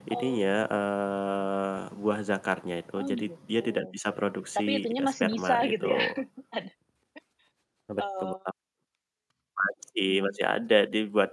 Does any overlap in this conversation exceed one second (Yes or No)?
Yes